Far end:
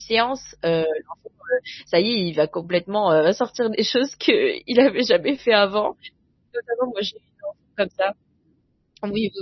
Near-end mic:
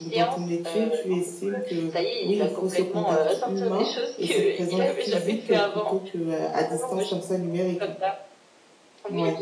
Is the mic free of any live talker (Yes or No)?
No